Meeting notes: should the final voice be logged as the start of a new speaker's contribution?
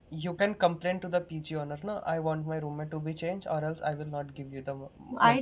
Yes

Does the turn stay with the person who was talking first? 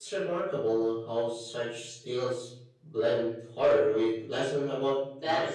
No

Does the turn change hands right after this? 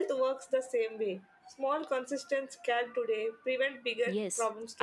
Yes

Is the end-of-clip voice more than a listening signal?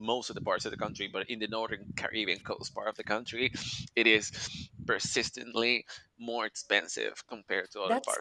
Yes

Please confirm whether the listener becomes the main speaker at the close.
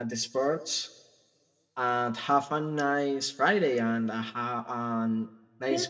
Yes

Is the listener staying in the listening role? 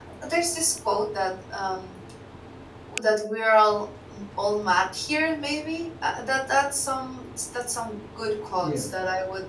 Yes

